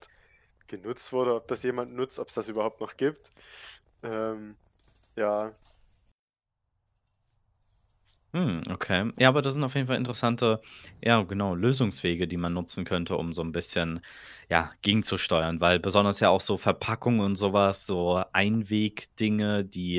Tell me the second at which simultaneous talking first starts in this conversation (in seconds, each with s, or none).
none